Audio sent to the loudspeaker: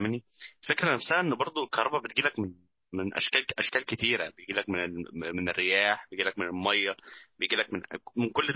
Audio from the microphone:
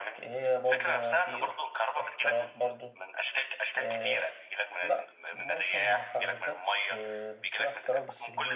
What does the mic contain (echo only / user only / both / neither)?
both